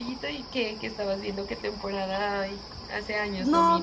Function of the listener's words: taking over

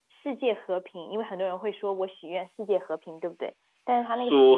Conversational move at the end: taking over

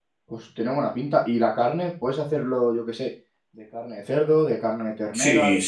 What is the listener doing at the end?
taking over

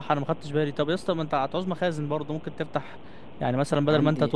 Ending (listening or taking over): listening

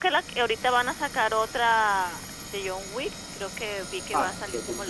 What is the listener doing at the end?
taking over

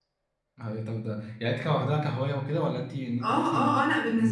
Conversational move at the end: taking over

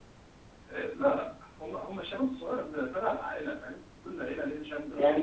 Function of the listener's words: taking over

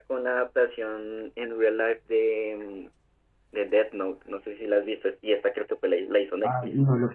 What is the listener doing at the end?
taking over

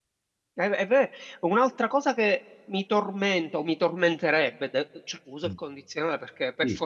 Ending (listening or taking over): listening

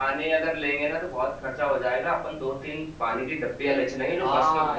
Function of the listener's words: taking over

